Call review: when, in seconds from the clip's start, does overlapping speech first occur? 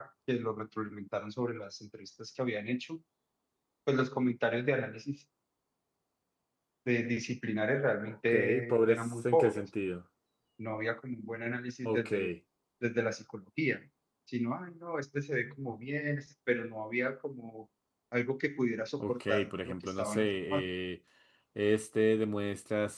8.3 s

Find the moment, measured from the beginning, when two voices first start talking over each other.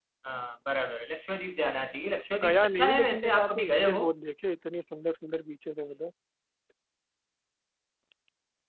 2.4 s

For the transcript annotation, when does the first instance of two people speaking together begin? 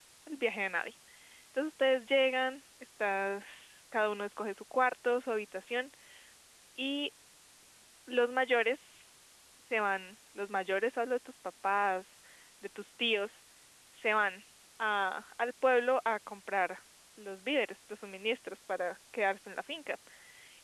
none

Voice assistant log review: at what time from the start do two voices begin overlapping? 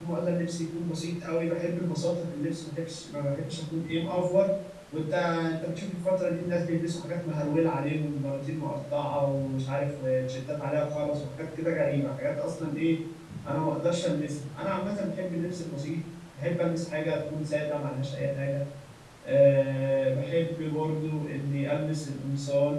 none

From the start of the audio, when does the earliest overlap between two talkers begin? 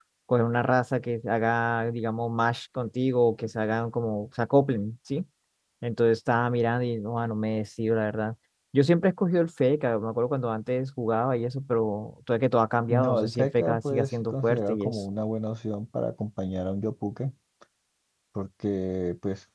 12.9 s

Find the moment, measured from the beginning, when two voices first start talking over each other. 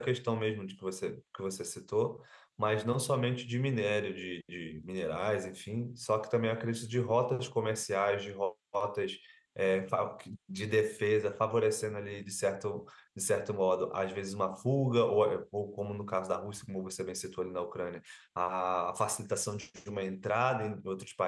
none

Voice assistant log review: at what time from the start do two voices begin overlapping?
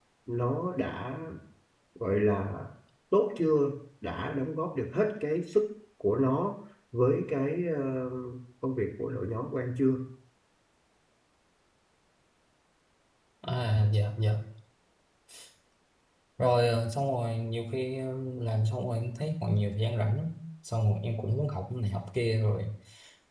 none

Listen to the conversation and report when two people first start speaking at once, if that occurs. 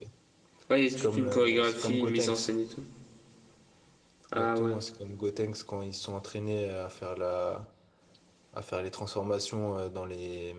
0.9 s

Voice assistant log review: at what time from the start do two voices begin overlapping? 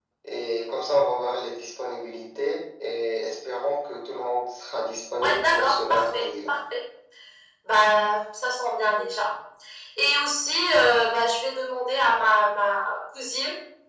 5.2 s

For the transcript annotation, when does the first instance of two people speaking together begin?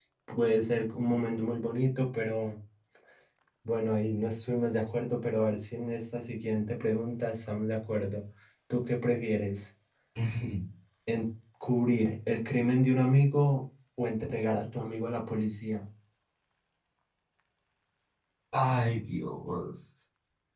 none

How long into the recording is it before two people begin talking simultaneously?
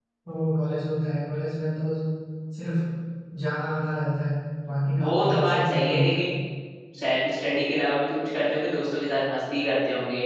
5.0 s

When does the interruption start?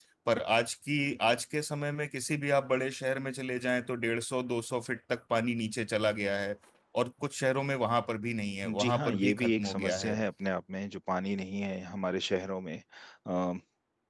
8.6 s

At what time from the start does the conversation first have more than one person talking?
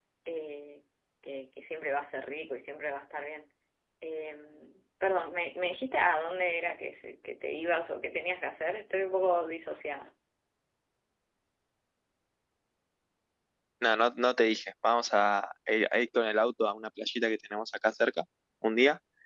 none

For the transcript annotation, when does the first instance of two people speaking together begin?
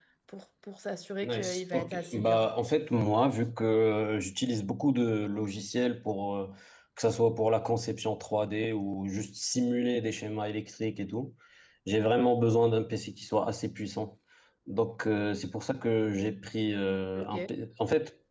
1.2 s

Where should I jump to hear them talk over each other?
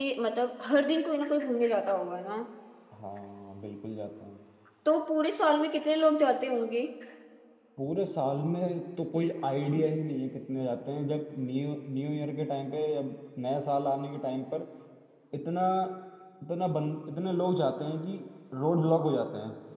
none

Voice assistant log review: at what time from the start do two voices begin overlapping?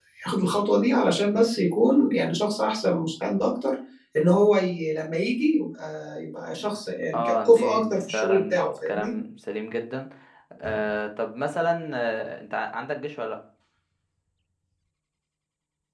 7.1 s

